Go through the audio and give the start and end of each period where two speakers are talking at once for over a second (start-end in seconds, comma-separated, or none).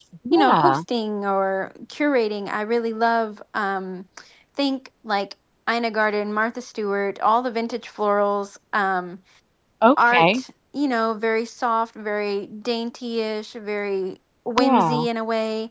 none